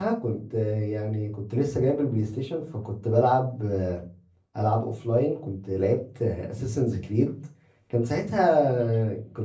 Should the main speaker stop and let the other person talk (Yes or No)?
No